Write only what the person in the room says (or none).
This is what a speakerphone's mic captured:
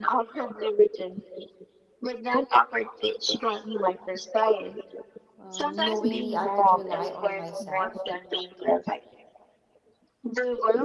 um, knowingly I could rely on myself